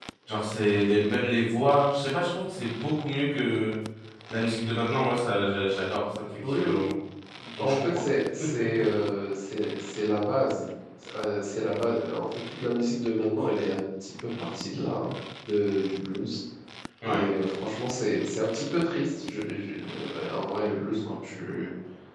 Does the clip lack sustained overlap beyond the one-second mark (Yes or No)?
Yes